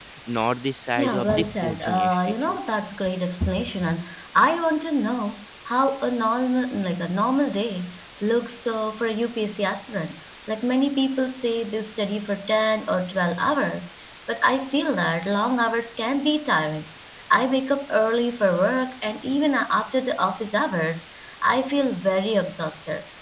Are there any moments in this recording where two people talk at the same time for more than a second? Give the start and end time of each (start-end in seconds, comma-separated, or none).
1.0-2.6